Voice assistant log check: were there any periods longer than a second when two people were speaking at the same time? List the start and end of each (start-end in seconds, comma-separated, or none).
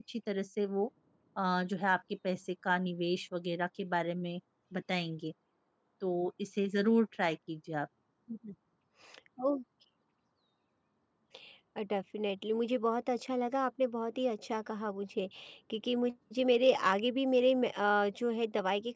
none